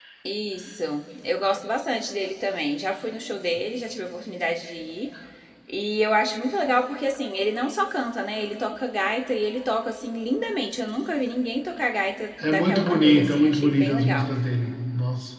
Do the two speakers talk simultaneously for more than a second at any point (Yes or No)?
Yes